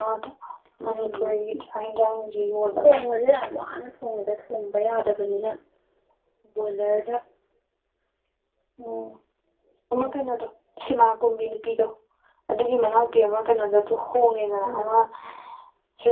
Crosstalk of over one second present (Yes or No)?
No